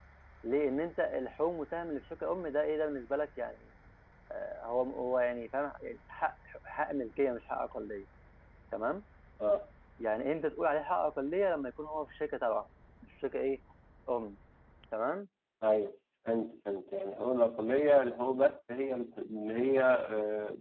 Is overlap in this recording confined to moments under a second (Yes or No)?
Yes